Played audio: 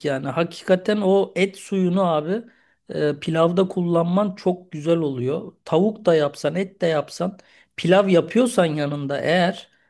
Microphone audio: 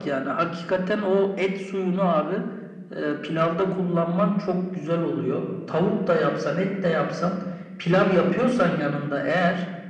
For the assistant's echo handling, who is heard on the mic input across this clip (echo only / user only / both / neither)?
echo only